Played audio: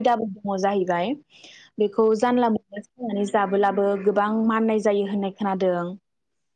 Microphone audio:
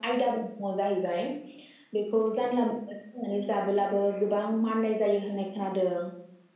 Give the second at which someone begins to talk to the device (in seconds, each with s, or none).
none